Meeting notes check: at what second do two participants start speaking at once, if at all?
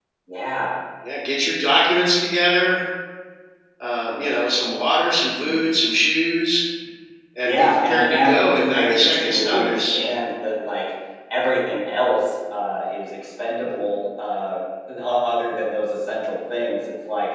7.4 s

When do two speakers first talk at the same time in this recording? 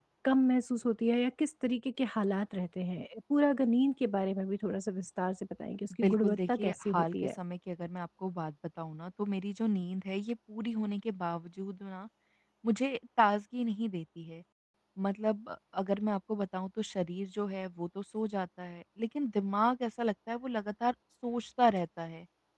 6.0 s

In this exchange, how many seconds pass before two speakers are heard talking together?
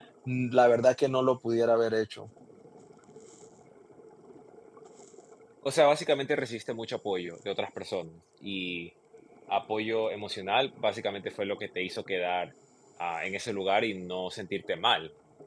none

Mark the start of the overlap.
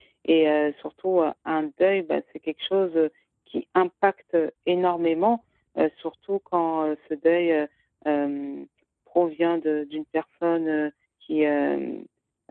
none

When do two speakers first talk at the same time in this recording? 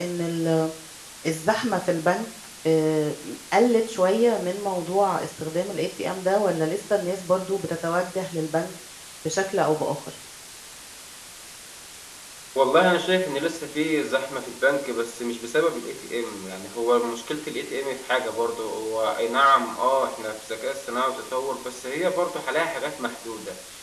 none

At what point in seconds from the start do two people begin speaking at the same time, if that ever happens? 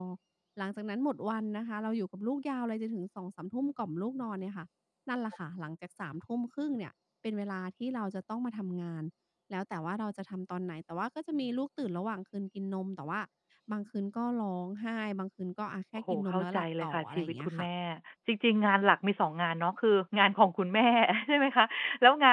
16.1 s

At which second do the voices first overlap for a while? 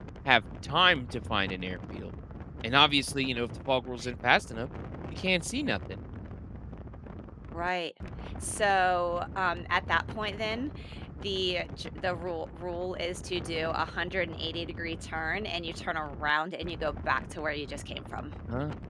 none

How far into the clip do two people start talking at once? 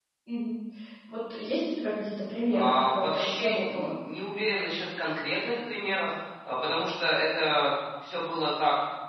2.5 s

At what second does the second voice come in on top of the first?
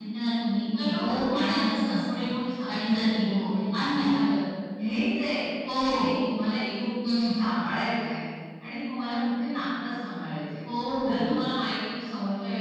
0.7 s

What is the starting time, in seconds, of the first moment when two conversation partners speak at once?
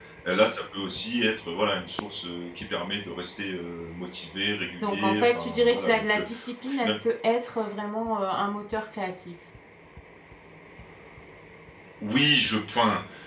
4.8 s

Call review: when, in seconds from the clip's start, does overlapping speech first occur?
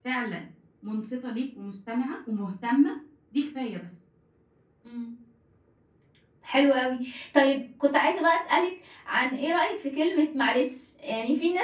none

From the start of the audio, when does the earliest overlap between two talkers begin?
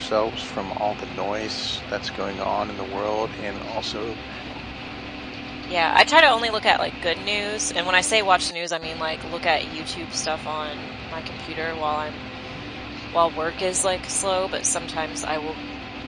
none

